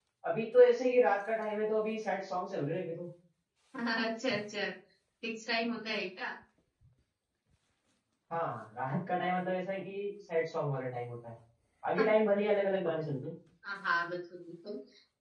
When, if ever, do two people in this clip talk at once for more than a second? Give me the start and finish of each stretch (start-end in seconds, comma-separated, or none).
none